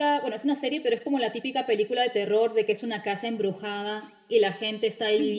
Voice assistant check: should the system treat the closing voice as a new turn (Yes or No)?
No